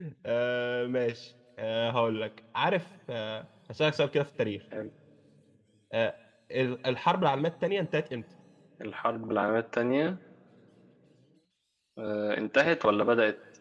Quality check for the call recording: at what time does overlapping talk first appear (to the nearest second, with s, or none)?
none